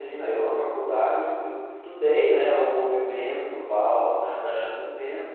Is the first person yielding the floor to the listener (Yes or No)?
No